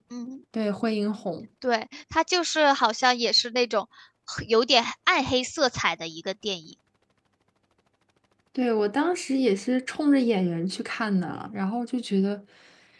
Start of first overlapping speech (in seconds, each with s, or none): none